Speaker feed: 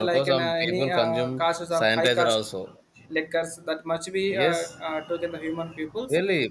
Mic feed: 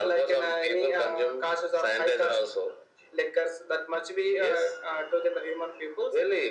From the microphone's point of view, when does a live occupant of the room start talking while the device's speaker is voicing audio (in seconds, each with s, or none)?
none